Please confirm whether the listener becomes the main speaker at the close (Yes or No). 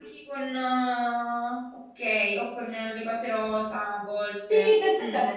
Yes